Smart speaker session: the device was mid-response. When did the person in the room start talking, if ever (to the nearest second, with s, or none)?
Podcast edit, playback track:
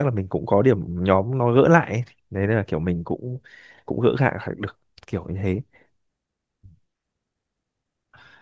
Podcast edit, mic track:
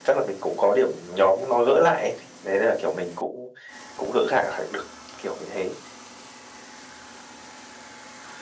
none